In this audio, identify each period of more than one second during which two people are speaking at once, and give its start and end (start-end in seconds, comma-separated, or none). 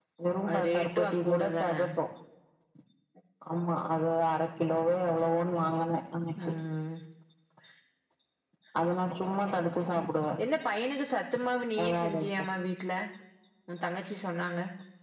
0.5-1.7